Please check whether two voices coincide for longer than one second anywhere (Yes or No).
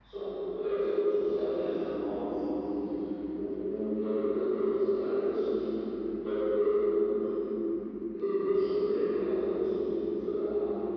No